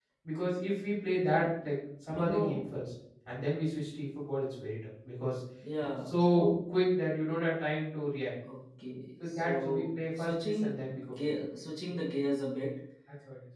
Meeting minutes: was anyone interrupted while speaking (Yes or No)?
Yes